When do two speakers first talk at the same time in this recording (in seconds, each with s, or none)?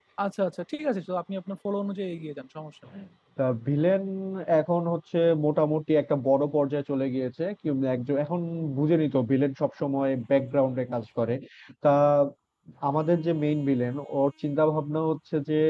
none